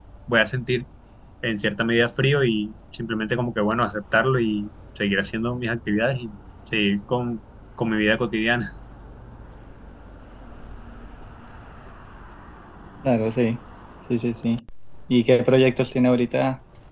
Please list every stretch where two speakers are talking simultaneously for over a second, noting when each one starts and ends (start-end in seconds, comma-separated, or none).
none